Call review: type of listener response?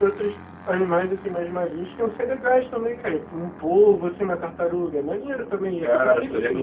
taking over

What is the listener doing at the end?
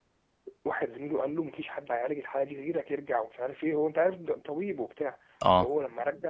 listening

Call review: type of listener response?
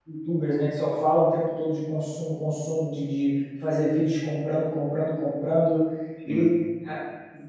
listening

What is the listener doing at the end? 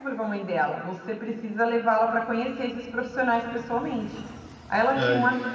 listening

